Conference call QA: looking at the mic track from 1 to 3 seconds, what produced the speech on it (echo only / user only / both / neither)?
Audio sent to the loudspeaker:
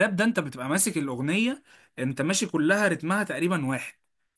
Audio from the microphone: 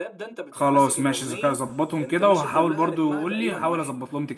both